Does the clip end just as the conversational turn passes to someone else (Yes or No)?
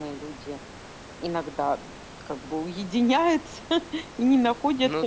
No